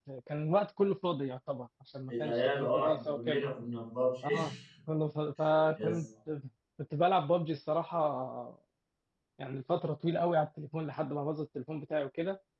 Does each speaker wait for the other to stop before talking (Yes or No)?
No